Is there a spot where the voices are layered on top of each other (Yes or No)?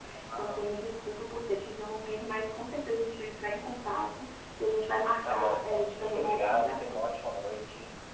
Yes